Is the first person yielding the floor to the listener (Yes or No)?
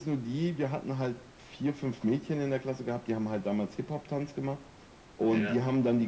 No